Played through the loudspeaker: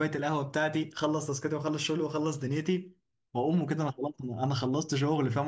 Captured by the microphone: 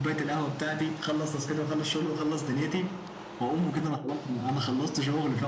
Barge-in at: none

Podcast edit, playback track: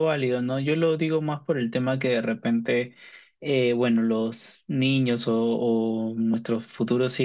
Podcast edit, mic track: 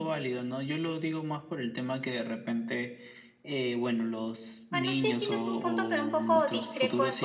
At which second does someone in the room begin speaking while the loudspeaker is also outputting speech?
5 s

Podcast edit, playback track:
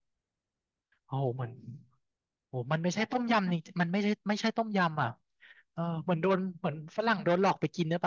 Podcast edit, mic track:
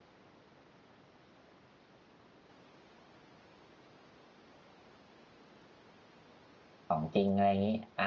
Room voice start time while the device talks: 7 s

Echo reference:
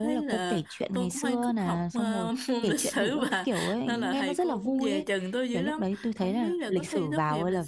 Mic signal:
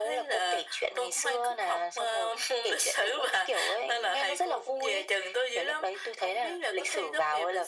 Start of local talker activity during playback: none

